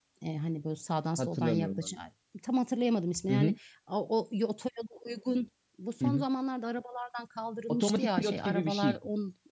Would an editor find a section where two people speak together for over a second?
Yes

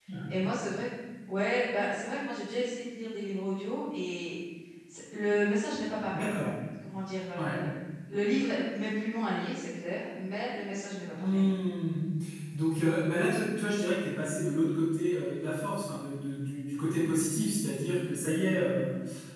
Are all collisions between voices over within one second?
Yes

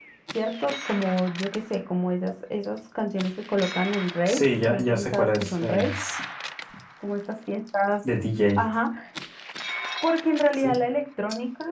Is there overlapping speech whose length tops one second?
Yes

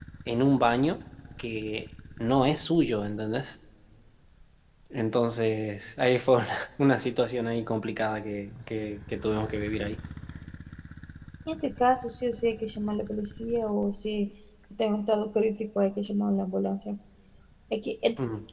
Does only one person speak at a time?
Yes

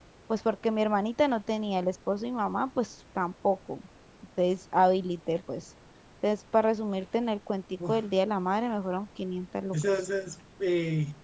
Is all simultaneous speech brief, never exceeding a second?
Yes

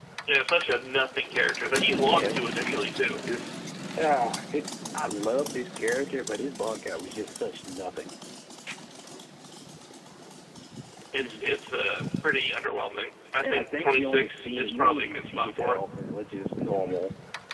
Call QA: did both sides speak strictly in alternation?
No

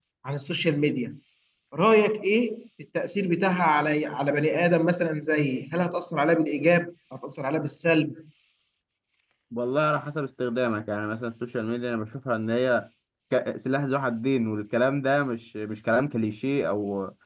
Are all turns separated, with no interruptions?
Yes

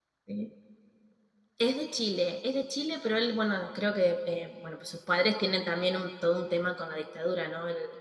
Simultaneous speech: No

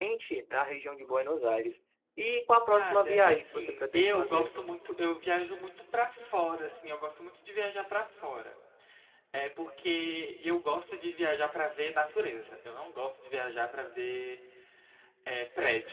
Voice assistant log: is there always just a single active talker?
No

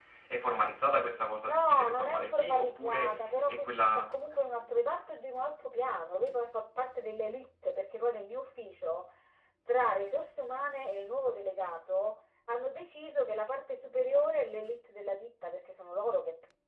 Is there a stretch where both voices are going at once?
Yes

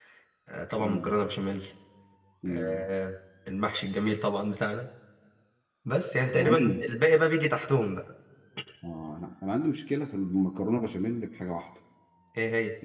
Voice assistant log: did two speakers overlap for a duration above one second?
No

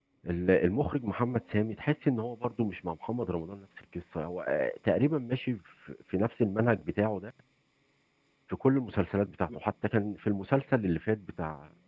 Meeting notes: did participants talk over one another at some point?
No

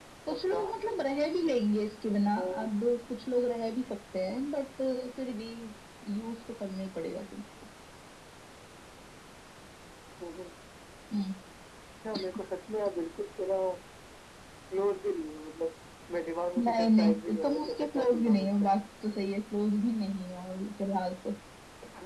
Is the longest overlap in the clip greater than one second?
Yes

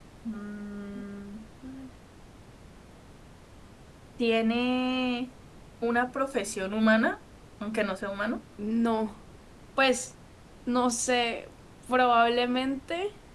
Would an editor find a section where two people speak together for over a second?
No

